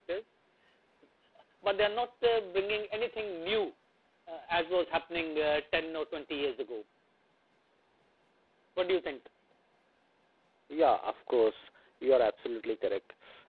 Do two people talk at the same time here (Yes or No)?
No